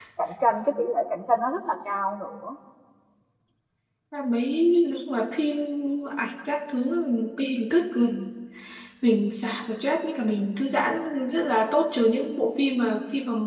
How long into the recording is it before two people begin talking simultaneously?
none

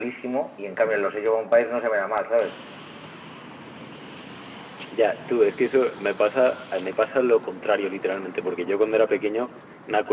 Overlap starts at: none

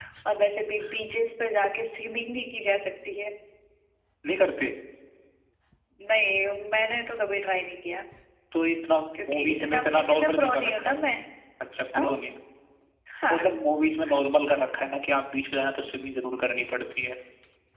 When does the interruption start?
9.3 s

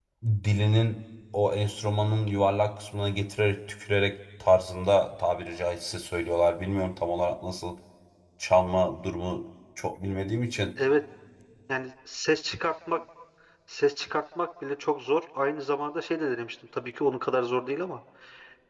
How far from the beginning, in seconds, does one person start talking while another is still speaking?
none

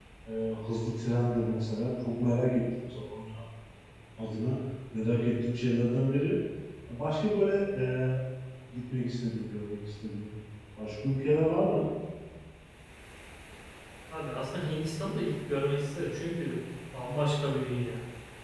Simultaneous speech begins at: none

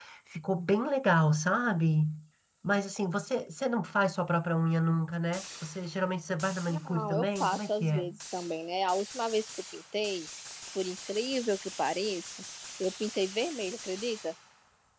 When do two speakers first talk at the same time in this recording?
6.7 s

